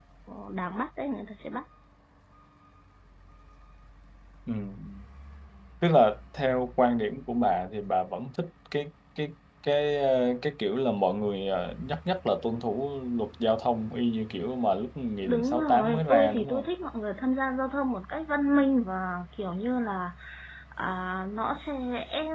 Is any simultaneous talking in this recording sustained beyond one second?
Yes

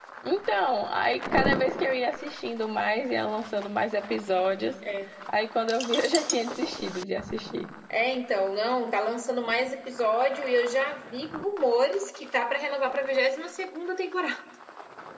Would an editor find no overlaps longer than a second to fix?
Yes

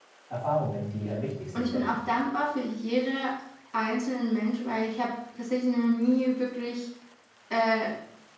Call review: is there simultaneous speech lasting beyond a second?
No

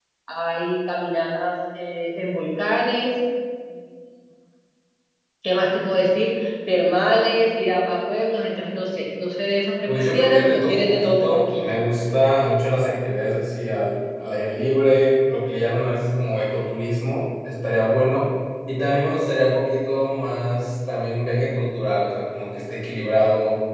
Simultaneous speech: Yes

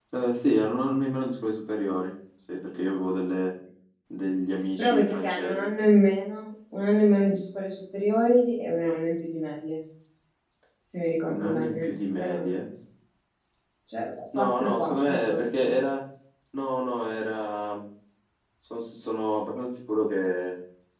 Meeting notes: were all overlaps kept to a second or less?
No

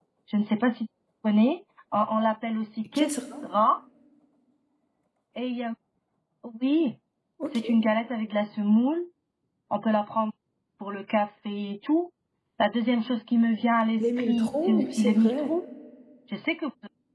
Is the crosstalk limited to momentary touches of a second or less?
No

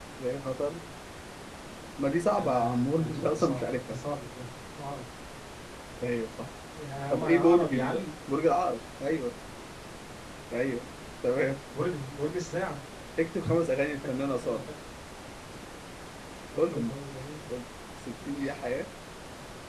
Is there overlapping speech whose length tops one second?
Yes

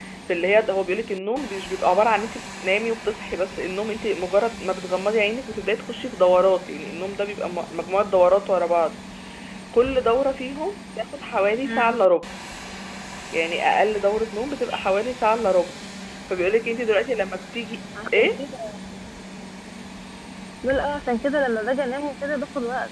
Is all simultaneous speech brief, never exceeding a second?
Yes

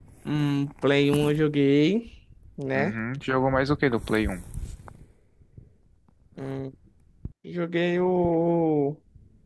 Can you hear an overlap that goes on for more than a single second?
No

